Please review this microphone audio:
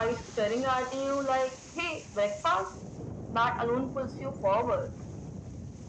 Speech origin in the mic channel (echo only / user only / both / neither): echo only